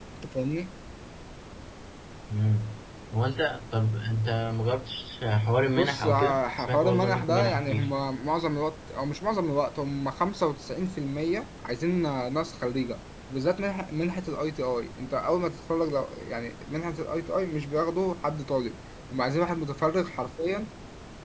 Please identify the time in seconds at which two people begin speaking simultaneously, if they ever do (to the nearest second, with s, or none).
6 s